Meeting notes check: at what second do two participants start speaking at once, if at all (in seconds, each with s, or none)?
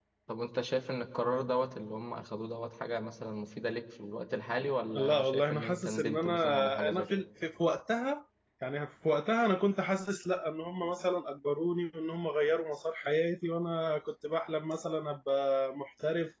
4.9 s